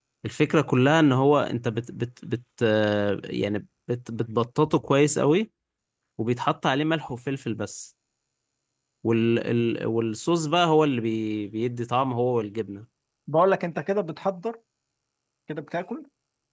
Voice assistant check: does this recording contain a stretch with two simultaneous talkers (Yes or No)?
No